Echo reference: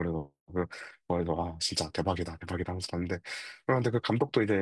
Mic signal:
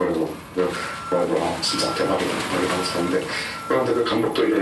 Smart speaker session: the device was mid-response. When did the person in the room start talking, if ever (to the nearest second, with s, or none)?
none